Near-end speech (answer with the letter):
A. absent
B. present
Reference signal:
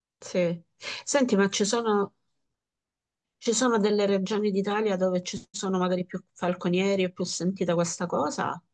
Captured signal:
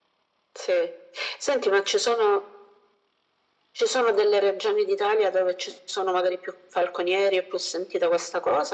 A